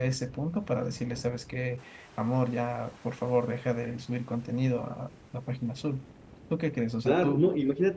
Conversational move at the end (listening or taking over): taking over